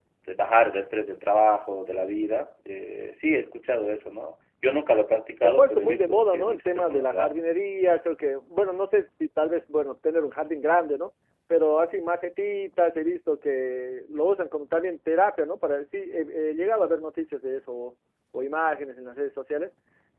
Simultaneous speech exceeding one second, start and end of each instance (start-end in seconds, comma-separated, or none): 5.4-7.5